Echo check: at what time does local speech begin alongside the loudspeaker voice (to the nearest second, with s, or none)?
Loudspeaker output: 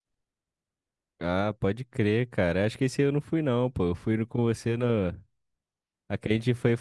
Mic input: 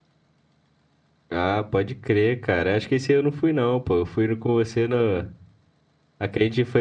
none